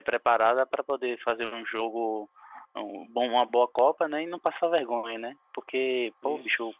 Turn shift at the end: No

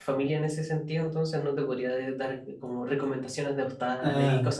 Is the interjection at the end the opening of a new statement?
Yes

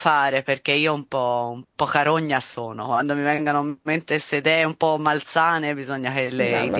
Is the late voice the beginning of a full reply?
Yes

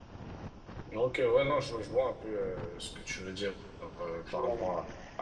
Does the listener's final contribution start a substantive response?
No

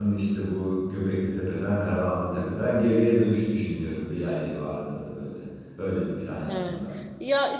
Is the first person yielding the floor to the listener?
Yes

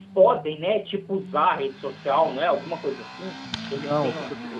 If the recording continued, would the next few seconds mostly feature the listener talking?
Yes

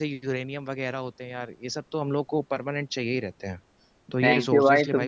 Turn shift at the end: Yes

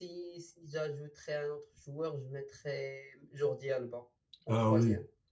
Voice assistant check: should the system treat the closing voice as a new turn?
Yes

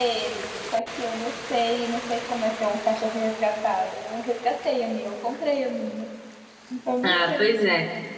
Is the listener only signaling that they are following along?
No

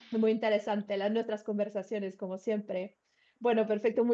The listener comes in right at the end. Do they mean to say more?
No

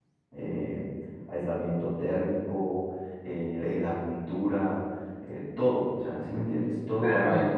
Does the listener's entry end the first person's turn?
Yes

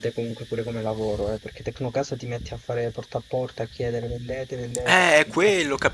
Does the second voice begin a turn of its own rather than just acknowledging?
Yes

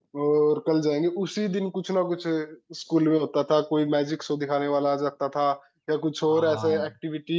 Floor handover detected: No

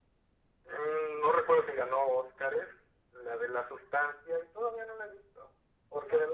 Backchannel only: Yes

